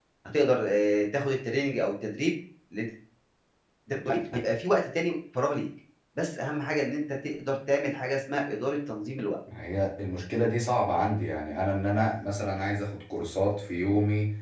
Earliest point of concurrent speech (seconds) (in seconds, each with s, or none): none